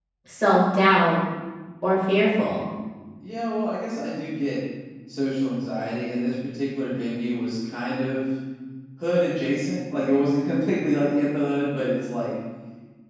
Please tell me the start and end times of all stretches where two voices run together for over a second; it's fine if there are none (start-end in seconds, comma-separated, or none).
none